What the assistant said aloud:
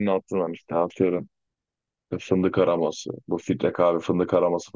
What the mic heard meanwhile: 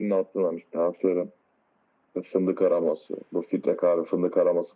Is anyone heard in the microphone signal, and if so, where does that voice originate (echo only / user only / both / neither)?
echo only